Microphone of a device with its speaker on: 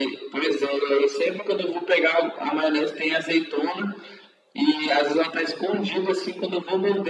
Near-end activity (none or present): none